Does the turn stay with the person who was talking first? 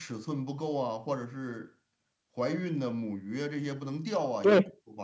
No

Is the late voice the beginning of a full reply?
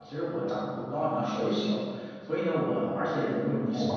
No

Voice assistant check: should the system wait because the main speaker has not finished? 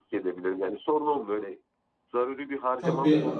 No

